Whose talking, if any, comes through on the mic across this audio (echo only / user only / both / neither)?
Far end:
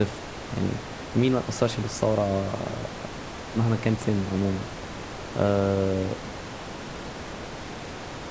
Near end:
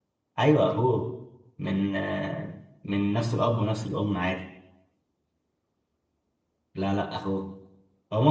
user only